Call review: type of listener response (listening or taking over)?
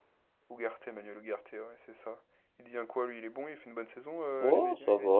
taking over